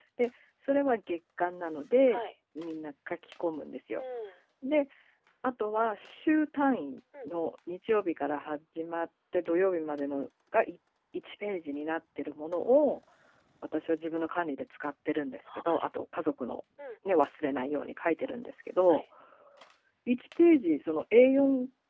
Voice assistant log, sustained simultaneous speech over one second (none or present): none